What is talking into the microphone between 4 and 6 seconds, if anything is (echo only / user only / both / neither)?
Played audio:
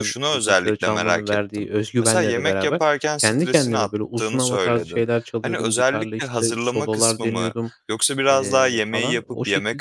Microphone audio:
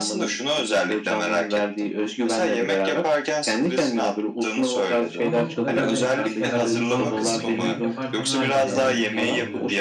both